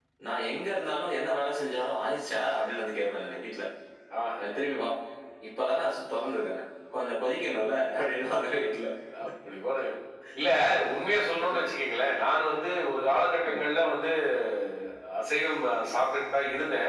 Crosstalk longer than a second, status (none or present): none